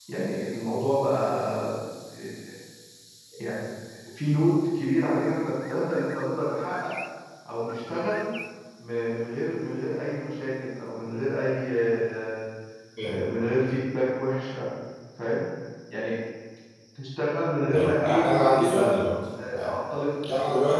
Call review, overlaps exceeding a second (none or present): present